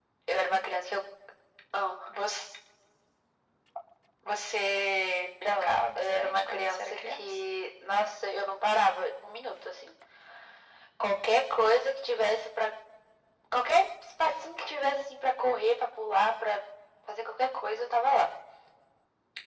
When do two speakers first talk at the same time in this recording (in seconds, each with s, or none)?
5.4 s